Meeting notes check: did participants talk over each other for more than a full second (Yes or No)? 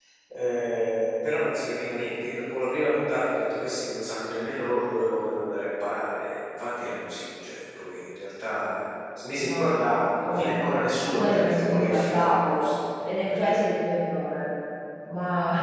Yes